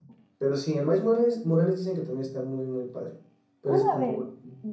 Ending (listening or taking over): taking over